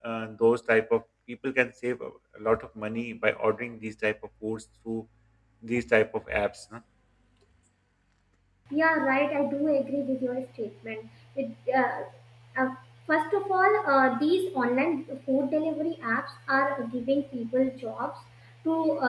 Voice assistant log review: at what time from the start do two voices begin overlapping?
none

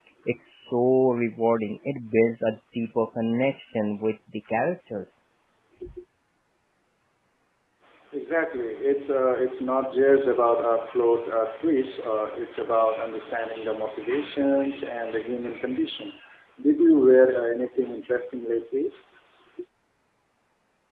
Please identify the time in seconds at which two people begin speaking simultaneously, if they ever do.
none

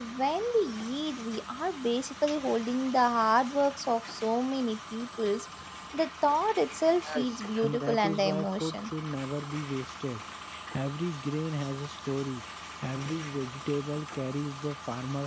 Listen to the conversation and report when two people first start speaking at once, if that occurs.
7.0 s

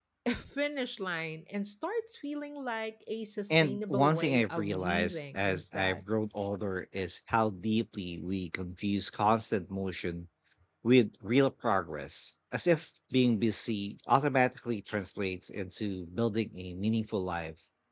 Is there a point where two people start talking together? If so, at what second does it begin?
3.5 s

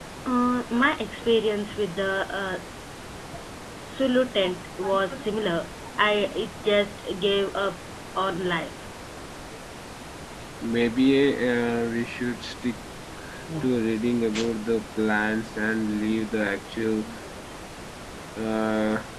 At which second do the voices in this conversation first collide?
none

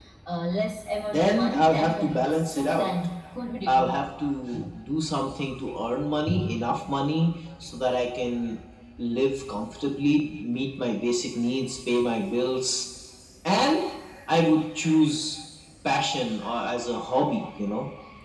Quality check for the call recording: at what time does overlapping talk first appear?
1.1 s

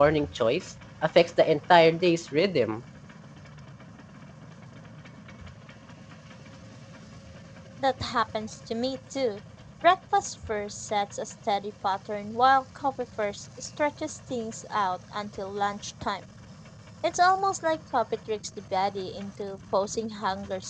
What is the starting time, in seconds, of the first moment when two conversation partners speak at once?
none

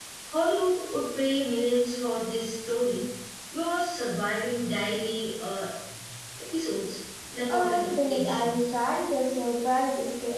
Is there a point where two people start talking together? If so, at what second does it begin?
7.4 s

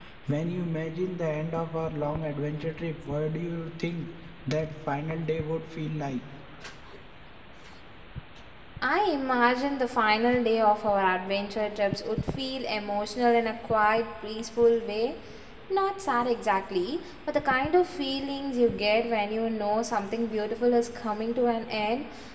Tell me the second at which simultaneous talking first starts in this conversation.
none

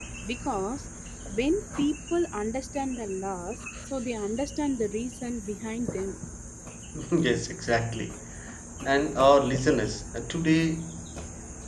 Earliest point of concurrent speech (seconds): none

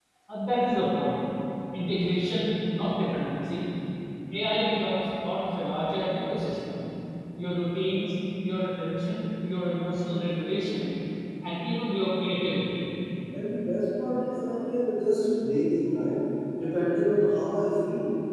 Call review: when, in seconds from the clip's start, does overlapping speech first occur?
none

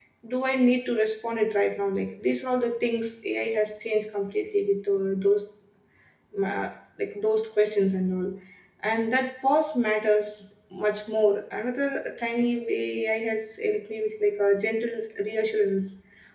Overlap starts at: none

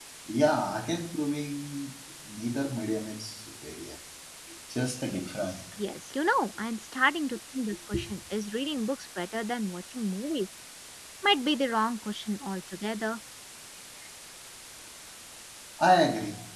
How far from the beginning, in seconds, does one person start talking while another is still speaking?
none

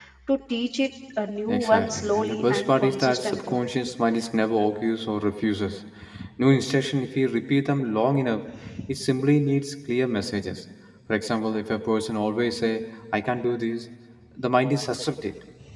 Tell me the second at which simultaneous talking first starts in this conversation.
1.5 s

